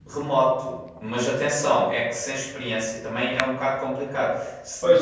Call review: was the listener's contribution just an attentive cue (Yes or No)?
No